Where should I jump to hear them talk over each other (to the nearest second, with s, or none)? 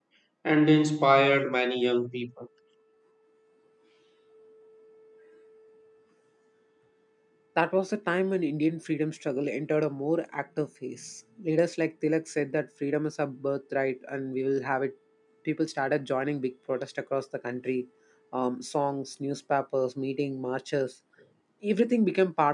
none